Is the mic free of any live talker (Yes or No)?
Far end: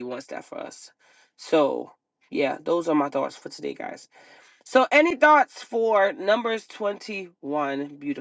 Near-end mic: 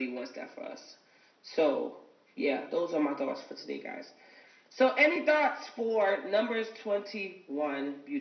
Yes